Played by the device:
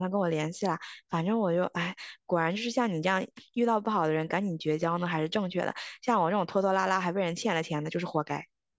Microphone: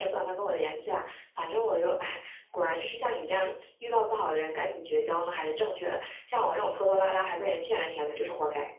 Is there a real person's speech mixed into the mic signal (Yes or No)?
No